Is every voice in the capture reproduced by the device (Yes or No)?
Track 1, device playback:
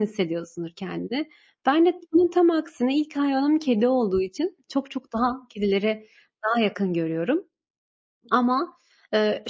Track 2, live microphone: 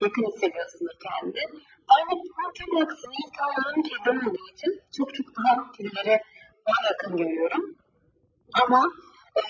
Yes